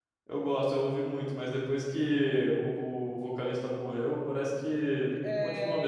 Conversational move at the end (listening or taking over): taking over